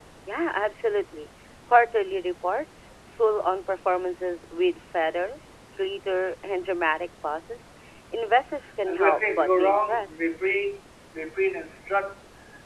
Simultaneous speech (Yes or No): Yes